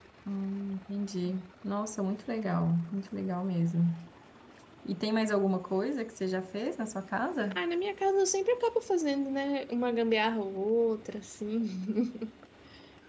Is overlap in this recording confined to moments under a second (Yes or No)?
Yes